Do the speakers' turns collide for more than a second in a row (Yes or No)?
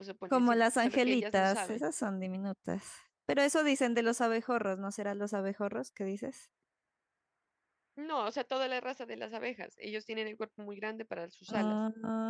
Yes